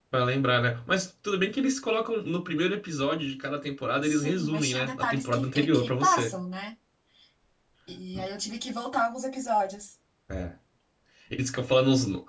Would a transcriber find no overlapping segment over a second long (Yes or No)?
No